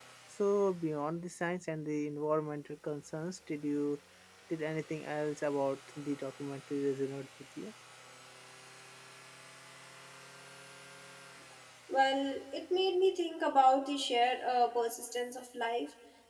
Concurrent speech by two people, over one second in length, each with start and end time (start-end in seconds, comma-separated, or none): none